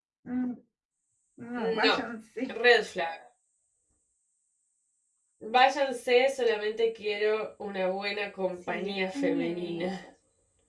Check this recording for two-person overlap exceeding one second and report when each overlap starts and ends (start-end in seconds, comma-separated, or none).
8.7-9.9